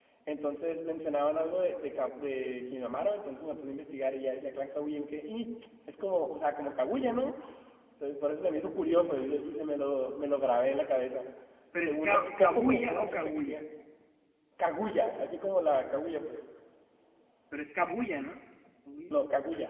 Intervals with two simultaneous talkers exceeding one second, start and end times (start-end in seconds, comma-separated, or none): 11.8-13.6